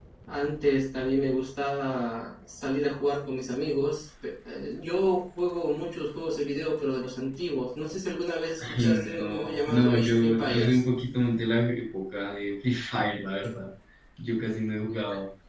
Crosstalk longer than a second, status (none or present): present